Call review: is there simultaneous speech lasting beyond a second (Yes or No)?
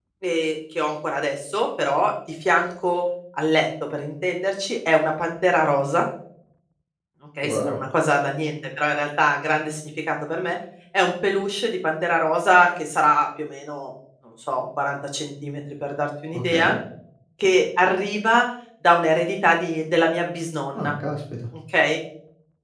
No